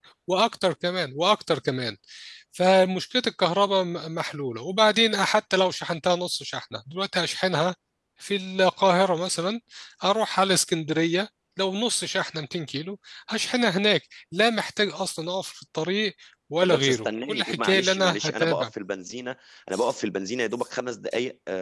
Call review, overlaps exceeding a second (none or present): present